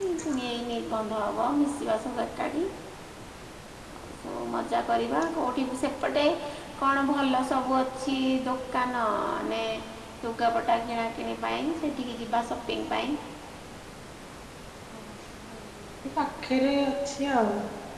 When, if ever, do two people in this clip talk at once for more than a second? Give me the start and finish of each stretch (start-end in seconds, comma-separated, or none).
none